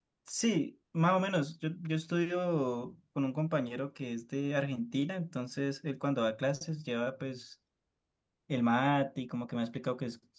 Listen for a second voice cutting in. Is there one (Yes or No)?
No